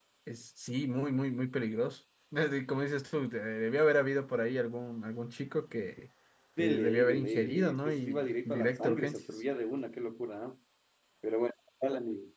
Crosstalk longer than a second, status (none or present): present